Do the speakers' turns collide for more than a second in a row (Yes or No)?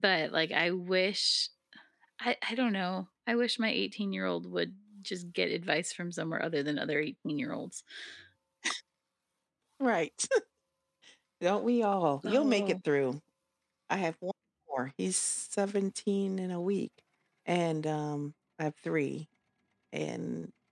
No